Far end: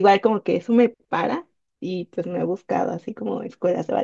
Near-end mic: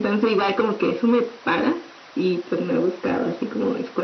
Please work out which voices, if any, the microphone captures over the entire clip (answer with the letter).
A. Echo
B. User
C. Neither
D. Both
A